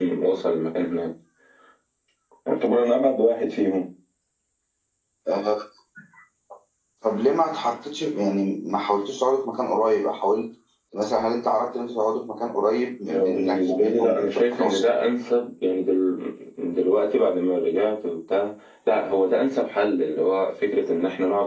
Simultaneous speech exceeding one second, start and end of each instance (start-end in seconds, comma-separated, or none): 13.1-14.9